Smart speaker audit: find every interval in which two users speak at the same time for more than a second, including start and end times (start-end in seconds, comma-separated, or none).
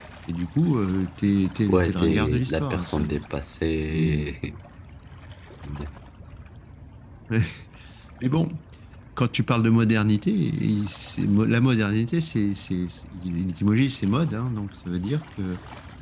1.7-3.0